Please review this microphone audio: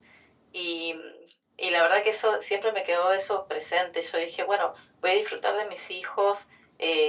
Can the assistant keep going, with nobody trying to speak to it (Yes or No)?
Yes